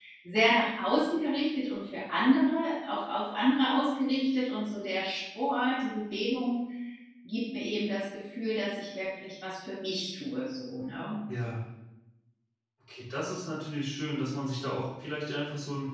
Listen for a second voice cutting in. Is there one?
No

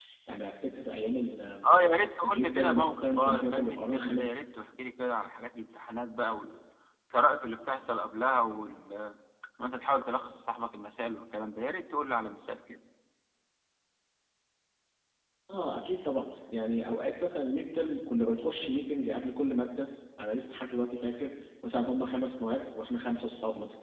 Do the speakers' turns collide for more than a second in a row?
Yes, from 2.2 s

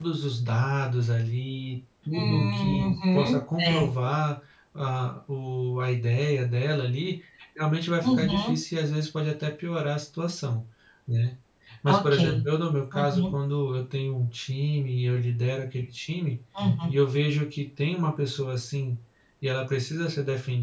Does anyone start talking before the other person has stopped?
Yes, from 2.1 s

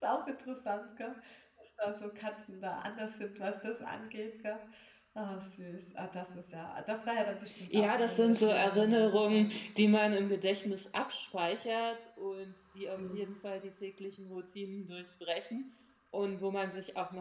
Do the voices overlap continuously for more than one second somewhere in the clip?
Yes, from 7.5 s

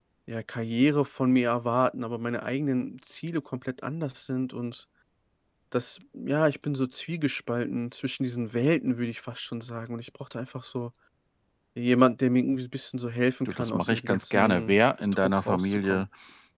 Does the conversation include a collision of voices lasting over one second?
Yes, from 13.4 s

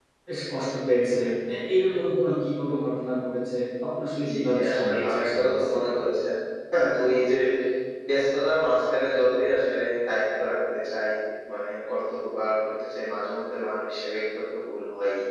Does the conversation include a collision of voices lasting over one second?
Yes, from 4.2 s

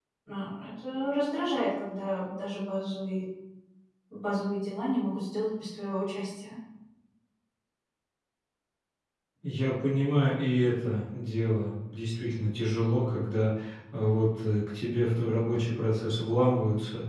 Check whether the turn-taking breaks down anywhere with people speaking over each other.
No

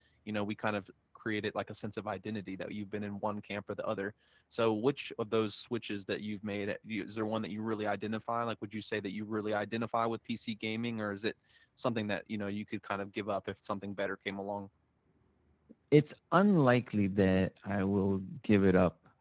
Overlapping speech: No

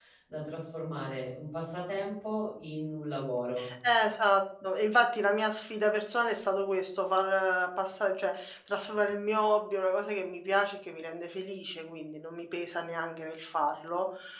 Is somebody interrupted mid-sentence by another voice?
No

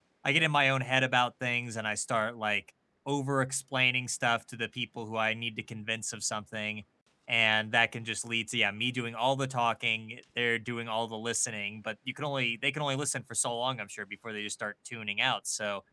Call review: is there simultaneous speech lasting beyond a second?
No

